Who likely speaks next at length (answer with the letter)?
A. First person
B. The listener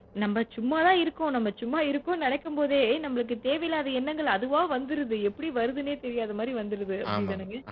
B